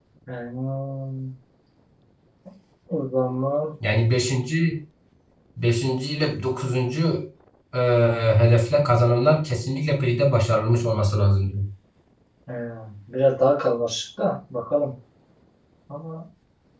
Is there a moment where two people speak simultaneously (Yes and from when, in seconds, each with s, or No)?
No